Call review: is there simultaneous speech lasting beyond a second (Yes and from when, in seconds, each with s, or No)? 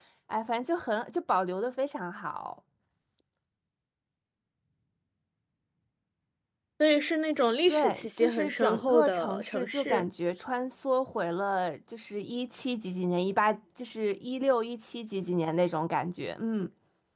Yes, from 7.7 s